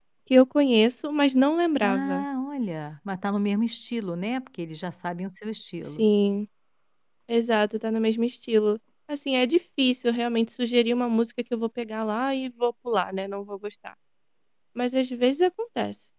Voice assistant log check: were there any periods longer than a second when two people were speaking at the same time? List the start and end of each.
none

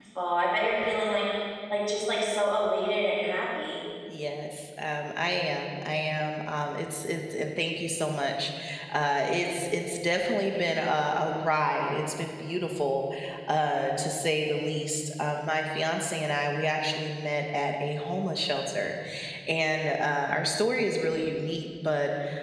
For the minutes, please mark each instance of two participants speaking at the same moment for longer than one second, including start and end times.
none

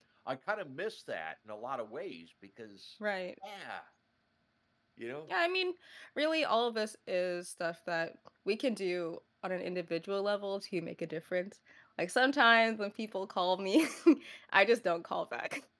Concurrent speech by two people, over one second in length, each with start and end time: none

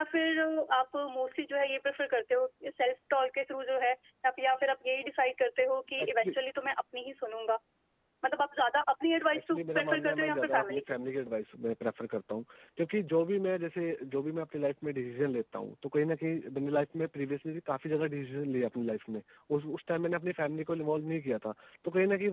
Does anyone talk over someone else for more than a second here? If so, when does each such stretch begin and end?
9.4-10.8

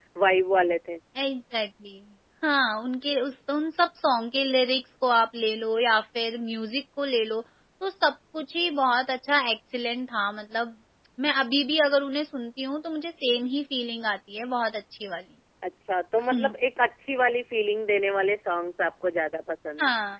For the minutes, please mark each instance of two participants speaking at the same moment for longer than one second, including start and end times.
none

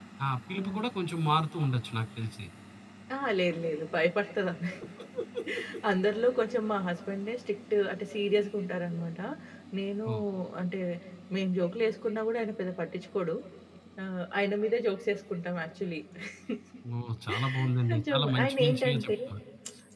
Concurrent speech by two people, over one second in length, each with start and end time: 17.9-19.1

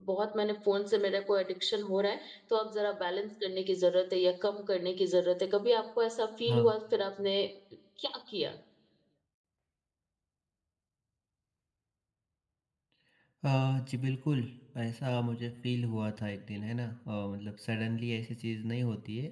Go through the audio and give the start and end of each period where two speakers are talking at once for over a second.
none

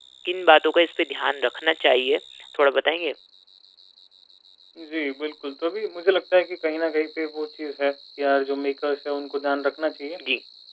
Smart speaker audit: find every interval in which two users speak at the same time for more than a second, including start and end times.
none

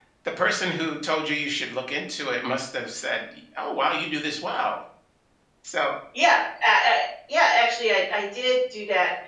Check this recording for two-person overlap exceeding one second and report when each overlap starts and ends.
none

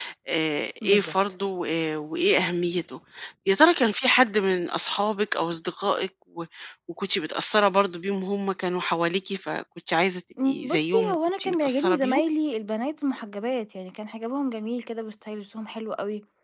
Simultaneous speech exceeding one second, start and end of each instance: 10.4-12.2

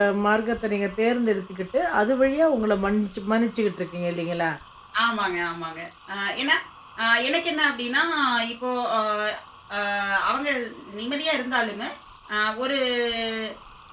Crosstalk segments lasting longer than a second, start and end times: none

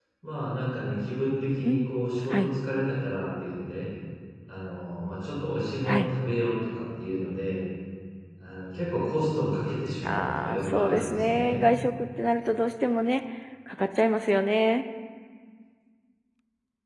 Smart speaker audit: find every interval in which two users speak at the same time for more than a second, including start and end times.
10.1-11.6

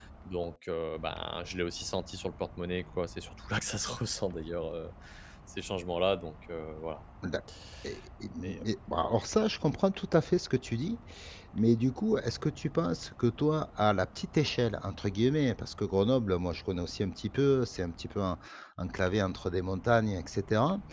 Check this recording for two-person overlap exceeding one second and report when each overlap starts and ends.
none

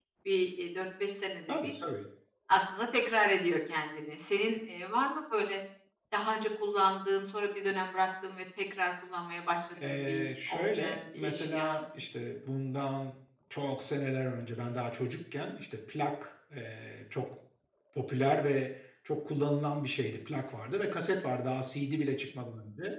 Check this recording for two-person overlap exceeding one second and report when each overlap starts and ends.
9.8-11.8

